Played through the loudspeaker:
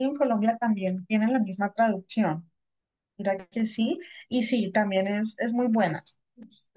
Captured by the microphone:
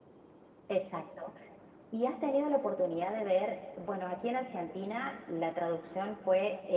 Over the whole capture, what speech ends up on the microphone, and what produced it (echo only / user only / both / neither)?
user only